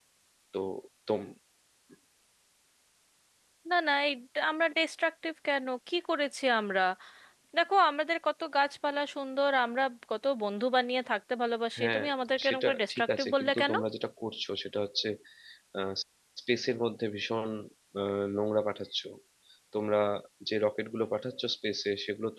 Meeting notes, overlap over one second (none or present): present